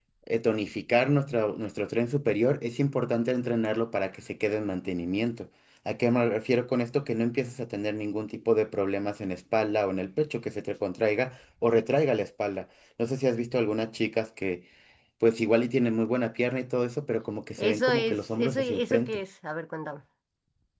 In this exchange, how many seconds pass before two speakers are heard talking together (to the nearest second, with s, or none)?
18 s